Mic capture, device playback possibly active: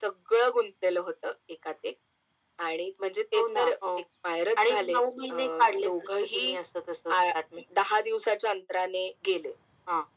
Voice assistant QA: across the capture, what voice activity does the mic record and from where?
echo only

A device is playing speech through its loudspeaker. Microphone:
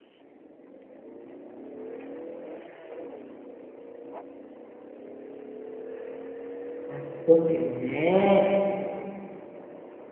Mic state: user only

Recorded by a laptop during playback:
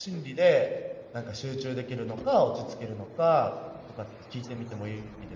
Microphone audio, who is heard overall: user only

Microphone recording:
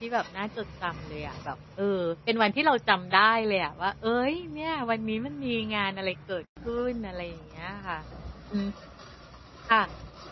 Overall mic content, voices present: user only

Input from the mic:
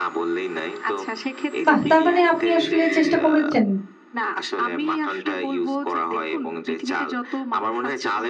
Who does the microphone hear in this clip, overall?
both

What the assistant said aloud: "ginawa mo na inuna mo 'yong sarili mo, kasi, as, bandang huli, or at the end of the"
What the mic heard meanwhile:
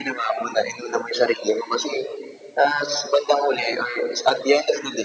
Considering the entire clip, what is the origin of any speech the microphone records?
echo only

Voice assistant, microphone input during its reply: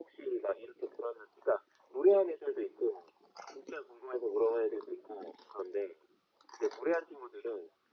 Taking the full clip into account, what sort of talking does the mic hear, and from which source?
echo only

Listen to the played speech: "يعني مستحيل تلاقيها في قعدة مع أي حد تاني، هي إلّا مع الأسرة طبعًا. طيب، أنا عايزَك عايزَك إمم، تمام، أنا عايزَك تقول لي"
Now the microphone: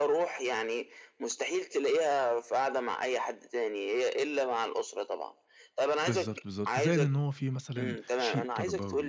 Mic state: both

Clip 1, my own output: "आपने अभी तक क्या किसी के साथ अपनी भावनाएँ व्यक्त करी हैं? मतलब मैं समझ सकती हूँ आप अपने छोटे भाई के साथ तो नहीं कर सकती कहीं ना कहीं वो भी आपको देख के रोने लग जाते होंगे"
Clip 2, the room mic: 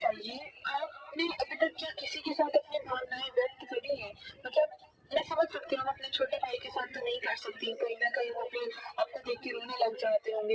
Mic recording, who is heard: echo only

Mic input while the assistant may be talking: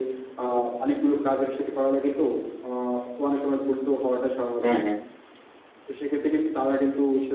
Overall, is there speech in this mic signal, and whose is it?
both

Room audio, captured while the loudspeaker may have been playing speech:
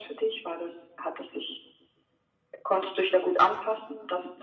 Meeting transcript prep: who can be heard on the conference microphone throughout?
echo only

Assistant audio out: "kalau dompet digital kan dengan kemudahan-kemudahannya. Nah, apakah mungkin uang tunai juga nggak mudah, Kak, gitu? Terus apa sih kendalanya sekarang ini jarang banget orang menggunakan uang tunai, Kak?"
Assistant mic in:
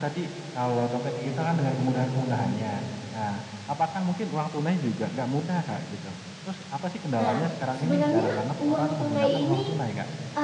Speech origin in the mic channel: both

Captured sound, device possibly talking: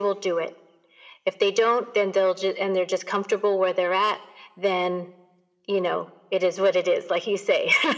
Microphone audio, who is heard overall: echo only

